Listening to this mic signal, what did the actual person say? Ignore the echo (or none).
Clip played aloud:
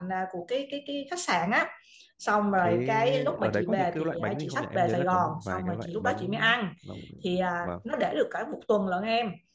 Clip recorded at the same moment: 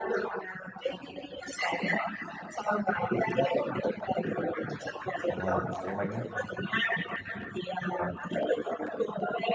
Hoặc là cái bánh